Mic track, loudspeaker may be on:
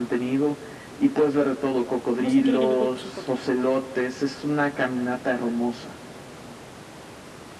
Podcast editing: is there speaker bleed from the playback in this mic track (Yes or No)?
Yes